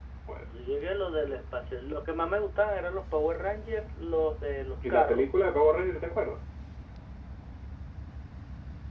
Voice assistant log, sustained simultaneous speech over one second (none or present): none